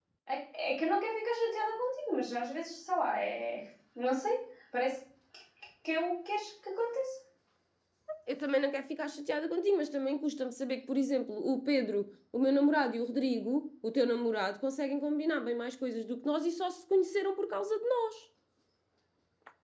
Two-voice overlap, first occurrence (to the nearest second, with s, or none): none